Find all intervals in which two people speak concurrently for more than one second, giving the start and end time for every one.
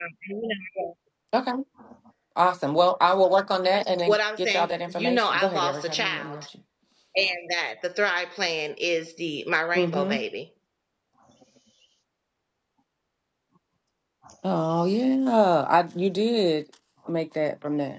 4.1-6.4

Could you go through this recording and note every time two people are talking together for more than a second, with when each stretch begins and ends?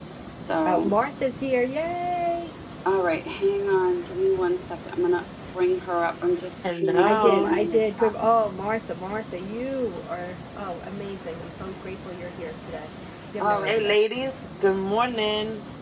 6.7-8.1

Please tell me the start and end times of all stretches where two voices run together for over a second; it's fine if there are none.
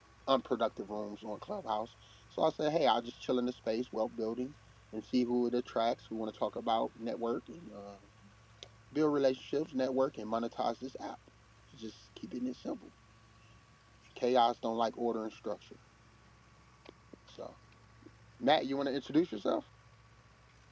none

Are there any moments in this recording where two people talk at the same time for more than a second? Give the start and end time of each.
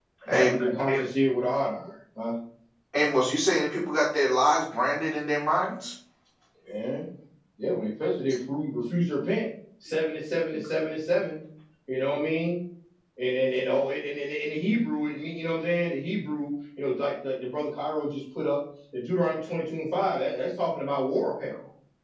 none

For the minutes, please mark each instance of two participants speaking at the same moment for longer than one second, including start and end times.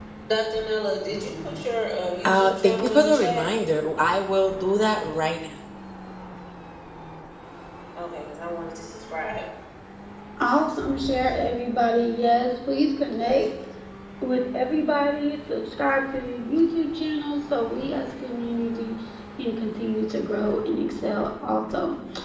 2.2-3.6

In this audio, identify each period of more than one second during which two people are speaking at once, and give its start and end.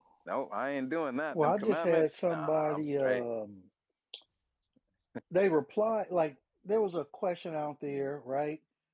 1.3-3.2

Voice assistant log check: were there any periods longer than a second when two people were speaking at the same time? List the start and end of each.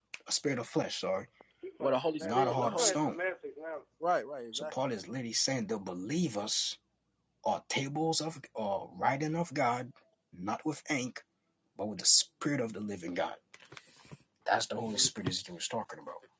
1.8-3.2

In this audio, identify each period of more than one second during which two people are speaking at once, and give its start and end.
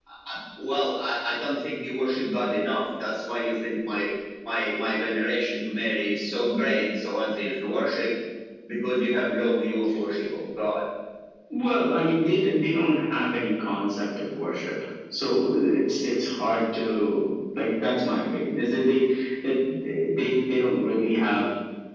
none

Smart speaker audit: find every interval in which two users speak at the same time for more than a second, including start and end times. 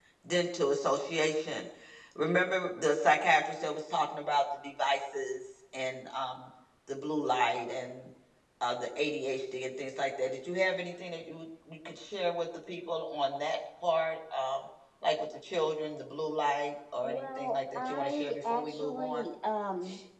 17.0-19.2

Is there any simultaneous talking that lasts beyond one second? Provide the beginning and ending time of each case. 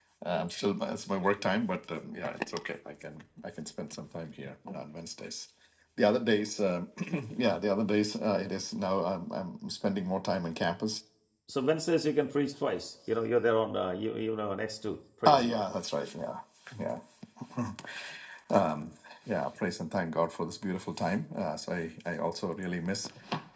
none

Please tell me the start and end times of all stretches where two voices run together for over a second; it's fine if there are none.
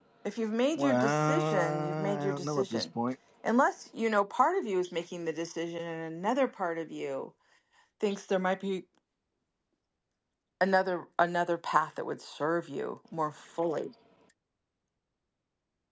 0.8-2.9

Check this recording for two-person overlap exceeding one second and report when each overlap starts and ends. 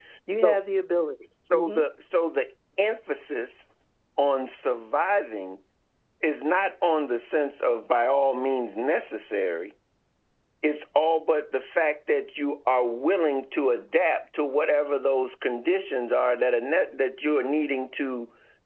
none

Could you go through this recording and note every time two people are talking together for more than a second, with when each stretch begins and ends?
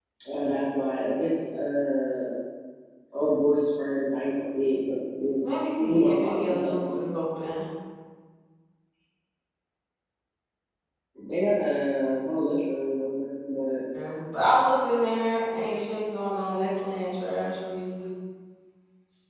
5.8-7.2

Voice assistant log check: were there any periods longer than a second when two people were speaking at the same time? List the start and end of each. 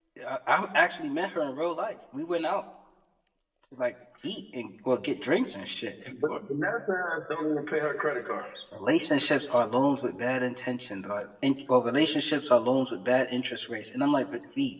none

